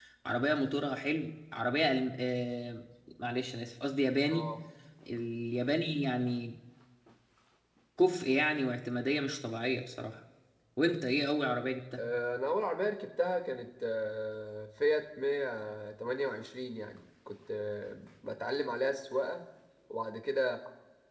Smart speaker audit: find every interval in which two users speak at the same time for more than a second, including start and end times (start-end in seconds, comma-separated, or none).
none